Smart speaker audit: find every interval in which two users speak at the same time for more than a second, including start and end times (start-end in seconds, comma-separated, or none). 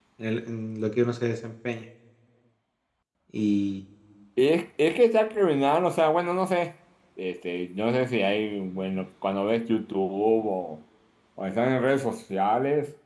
none